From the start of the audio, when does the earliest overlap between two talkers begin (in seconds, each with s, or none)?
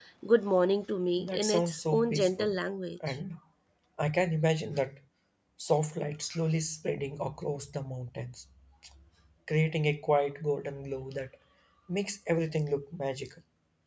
1.2 s